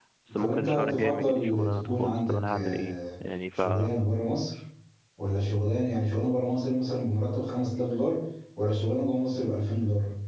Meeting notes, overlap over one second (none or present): present